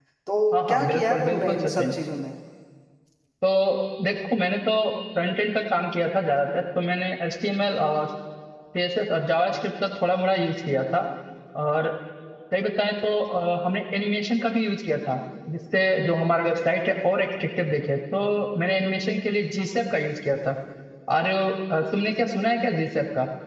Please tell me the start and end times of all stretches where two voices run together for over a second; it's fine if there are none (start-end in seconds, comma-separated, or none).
0.5-1.9